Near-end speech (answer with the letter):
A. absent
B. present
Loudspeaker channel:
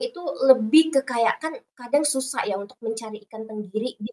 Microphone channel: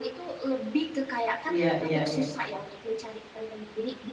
B